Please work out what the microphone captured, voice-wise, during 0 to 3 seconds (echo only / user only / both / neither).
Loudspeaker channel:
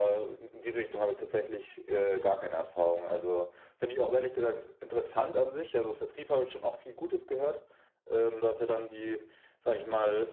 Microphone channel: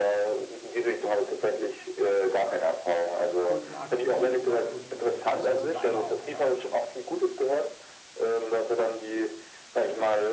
echo only